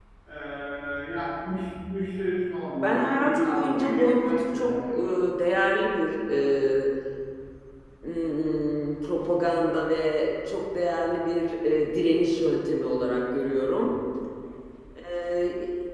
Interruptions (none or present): present